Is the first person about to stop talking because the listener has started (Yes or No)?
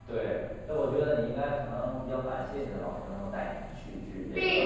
Yes